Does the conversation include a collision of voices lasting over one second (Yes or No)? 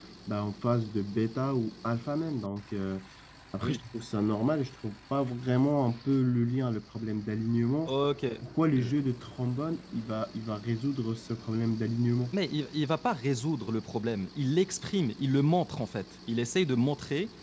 No